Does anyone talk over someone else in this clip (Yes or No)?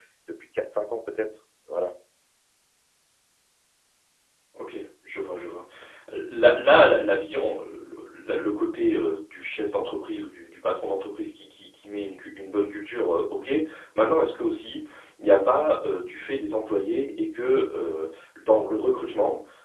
No